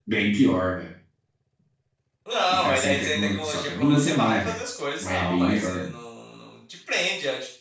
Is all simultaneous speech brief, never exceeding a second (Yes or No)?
No